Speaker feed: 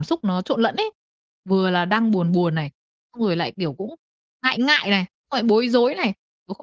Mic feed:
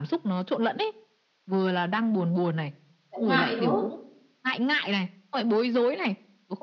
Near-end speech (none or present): present